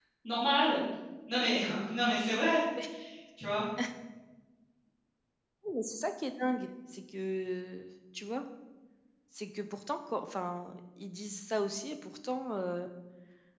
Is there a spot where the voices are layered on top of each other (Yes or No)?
No